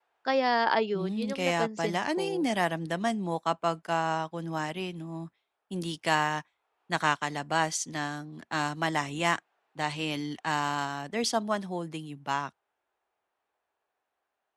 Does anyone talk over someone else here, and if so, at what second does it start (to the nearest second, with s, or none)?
1 s